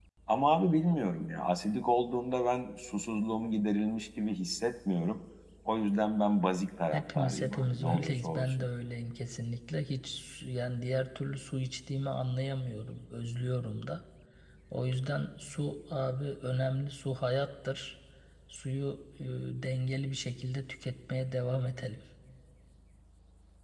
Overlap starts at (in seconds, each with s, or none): 6.9 s